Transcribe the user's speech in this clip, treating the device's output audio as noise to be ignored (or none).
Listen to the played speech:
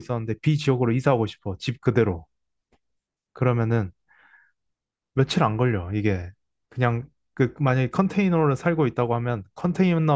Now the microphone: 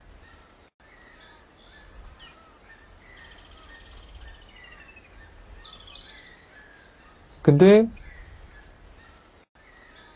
근데